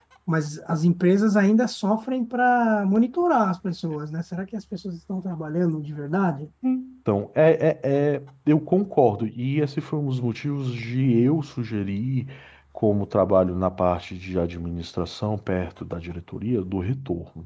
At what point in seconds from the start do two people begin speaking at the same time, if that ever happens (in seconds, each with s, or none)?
none